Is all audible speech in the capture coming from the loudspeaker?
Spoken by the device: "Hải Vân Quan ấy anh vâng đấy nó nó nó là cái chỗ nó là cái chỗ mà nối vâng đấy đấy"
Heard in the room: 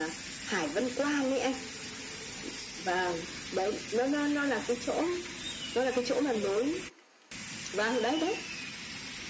Yes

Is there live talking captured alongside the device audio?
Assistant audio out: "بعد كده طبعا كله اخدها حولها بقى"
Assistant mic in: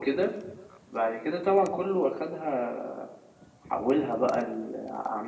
No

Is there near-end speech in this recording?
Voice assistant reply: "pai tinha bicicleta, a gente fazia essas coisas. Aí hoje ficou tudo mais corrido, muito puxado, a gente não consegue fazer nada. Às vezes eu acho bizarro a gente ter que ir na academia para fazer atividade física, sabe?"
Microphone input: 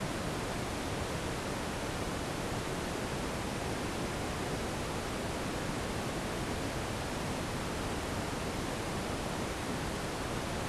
No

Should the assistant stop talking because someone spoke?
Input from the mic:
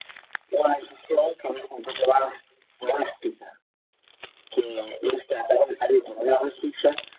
No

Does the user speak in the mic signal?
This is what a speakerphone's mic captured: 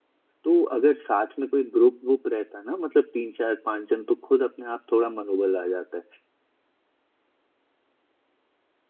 Yes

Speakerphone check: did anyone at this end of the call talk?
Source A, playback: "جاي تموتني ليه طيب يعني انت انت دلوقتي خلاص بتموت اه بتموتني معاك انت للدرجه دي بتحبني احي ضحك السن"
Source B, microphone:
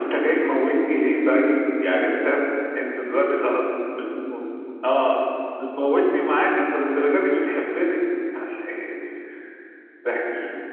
No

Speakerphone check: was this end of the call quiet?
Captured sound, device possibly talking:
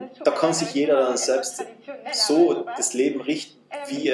No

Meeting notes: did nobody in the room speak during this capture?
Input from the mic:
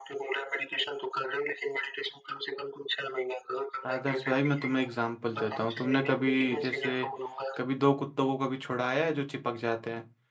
No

